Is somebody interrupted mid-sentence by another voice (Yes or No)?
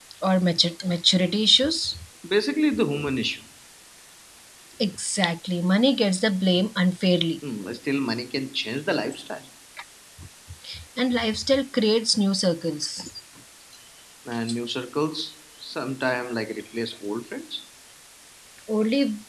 No